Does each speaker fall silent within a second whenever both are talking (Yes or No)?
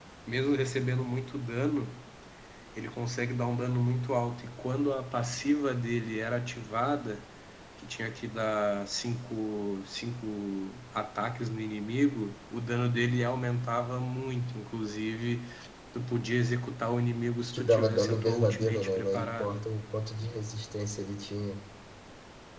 No